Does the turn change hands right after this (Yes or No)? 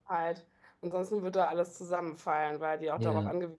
No